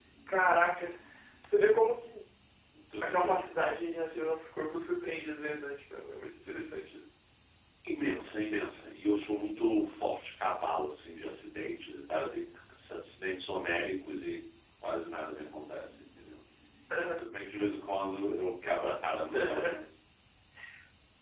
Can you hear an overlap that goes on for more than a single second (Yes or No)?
No